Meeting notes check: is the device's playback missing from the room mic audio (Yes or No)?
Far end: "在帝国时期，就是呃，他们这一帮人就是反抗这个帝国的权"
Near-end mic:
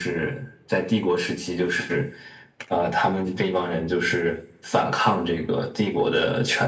No